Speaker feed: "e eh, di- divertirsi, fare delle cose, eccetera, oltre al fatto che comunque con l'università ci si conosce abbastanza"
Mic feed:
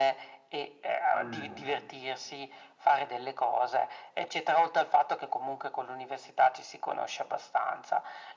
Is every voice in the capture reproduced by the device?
No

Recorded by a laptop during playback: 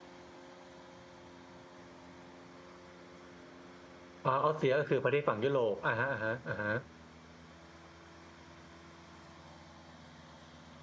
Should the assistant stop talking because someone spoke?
Yes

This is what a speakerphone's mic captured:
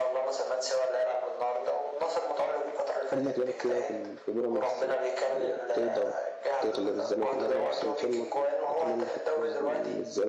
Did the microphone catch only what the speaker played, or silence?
No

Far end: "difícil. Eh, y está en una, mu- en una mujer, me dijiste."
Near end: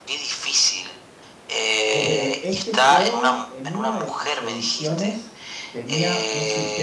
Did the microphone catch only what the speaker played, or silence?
No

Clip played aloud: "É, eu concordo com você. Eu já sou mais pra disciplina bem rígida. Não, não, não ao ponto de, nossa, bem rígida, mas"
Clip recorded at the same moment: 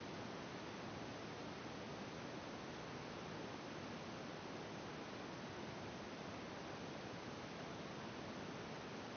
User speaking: No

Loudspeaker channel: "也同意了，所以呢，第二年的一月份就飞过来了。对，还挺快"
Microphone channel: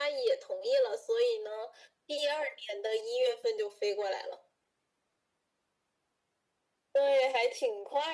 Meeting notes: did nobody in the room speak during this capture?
Yes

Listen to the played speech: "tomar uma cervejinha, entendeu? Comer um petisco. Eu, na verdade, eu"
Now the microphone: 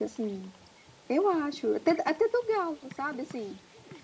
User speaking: Yes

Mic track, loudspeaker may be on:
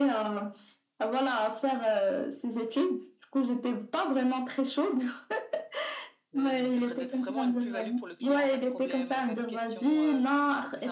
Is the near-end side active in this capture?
Yes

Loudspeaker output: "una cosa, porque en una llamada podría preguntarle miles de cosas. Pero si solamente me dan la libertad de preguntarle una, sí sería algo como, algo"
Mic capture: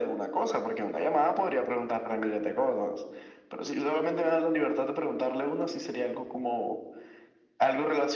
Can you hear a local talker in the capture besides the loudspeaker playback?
No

